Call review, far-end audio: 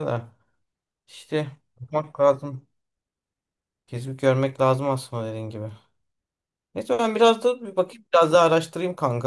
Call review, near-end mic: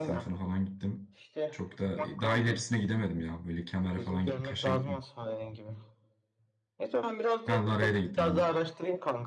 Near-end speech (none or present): present